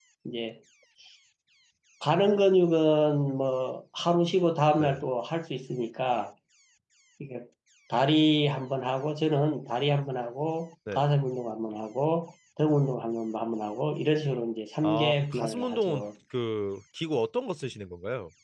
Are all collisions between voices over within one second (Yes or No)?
No